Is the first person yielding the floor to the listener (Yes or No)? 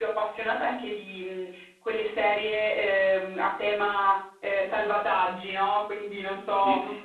No